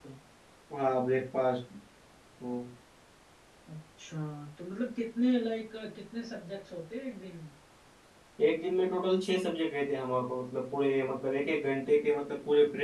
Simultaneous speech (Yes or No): No